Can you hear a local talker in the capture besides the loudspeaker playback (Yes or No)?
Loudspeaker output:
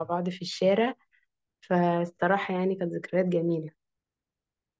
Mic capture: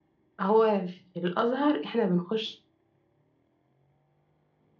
Yes